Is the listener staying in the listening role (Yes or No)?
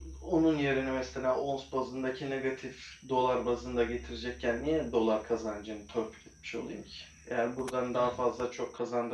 Yes